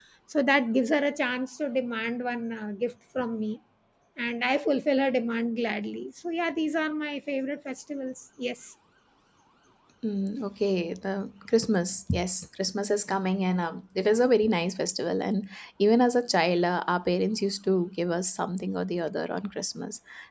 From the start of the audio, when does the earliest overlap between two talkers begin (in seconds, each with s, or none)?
none